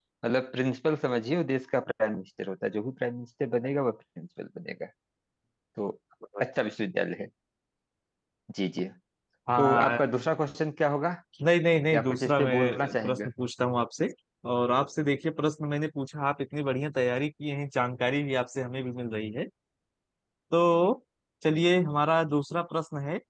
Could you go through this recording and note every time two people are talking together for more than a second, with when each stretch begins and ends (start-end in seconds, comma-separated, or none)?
11.9-13.3